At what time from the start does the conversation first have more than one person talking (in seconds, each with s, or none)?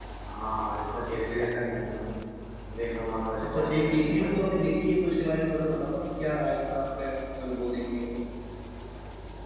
3.4 s